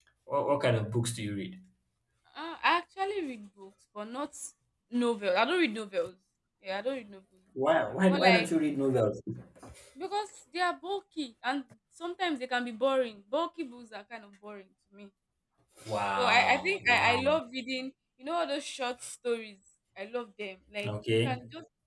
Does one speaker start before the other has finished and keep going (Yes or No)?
Yes